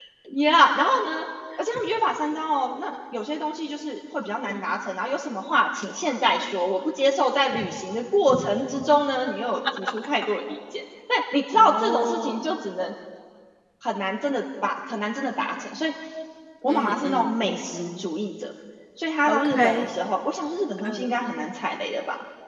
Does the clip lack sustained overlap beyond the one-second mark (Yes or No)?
No